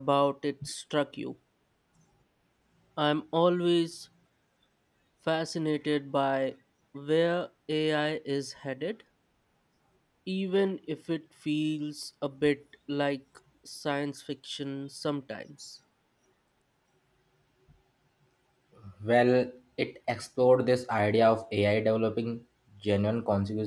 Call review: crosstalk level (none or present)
none